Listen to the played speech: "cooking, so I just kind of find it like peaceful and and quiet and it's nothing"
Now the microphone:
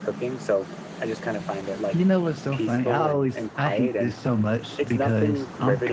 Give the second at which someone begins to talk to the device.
1.9 s

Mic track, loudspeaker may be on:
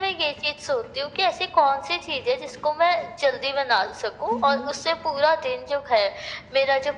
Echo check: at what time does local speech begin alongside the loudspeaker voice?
4.3 s

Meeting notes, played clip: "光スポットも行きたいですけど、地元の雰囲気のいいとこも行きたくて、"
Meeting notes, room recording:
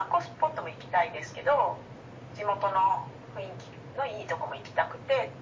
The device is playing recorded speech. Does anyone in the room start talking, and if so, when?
none

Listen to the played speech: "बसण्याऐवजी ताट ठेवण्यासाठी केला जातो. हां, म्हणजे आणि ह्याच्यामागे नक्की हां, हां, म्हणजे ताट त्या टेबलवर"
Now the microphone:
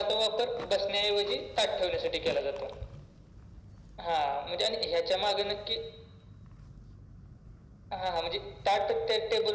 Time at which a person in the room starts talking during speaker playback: none

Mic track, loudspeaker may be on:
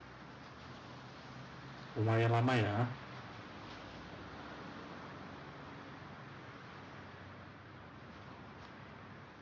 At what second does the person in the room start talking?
1.9 s

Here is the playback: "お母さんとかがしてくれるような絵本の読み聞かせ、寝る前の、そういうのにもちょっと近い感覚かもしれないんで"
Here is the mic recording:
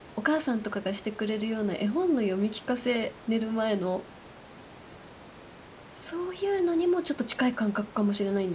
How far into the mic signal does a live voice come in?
none

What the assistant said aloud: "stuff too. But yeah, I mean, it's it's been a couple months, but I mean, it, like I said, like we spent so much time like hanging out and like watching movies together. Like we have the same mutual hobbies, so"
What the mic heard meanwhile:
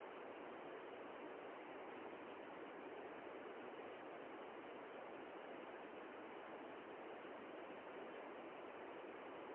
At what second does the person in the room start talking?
none

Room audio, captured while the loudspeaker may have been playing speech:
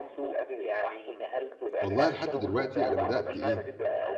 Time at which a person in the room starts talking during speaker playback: 1.8 s

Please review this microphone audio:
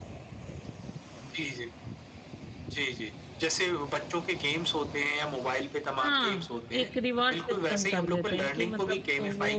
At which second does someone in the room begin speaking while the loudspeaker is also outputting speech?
6.0 s

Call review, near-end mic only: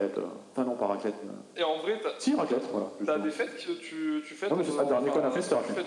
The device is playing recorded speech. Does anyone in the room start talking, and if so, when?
none

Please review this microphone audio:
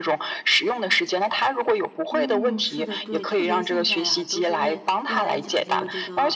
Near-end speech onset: 2.1 s

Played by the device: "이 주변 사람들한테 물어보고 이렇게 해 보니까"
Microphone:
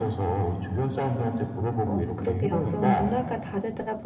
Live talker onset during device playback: 1.9 s

